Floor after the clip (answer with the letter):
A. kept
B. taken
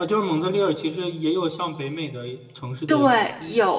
B